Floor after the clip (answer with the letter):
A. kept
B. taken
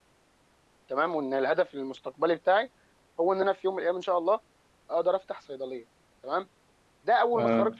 A